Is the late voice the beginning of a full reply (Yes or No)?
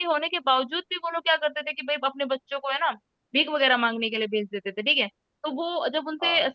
No